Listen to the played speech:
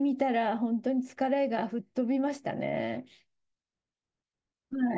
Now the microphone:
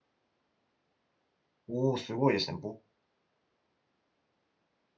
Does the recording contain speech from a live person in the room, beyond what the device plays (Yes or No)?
Yes